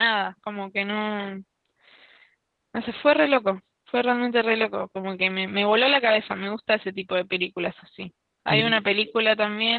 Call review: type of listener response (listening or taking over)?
listening